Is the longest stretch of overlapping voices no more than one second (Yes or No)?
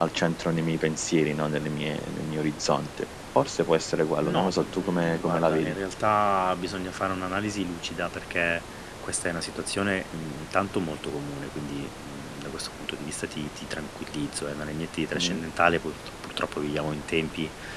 No